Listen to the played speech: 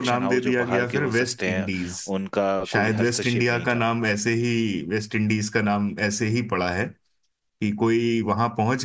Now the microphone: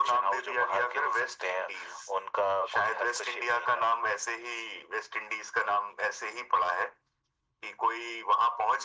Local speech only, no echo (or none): none